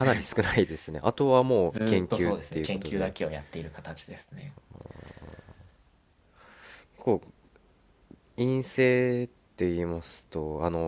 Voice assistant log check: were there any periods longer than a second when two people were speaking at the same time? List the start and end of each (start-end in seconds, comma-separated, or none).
1.7-3.1